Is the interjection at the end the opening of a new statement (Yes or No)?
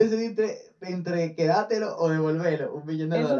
Yes